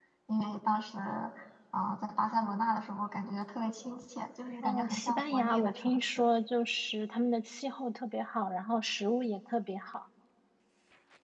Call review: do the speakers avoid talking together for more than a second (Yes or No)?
No